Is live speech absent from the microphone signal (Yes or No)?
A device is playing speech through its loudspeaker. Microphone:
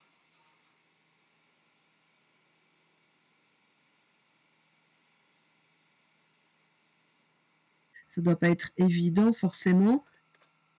No